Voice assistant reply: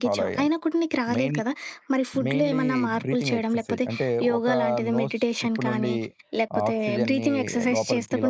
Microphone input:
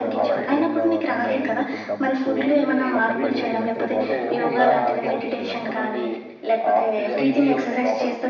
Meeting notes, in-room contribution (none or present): present